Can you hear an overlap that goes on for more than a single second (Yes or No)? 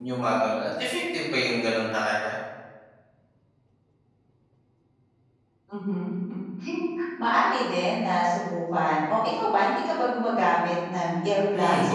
No